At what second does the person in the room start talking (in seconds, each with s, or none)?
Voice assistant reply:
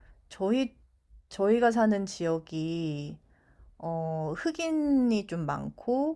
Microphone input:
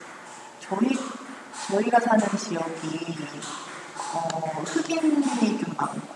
none